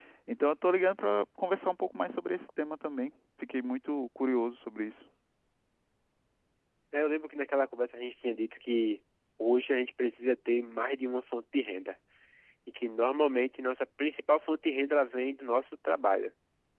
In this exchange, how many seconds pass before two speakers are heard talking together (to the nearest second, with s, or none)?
none